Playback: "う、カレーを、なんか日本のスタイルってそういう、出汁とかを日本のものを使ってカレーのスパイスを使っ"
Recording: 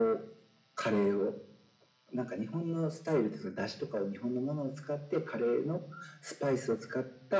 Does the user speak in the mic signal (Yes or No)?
No